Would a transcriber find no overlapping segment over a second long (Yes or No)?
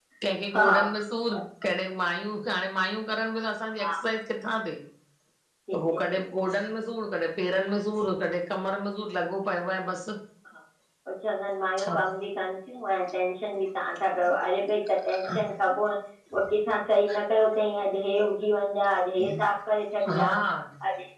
Yes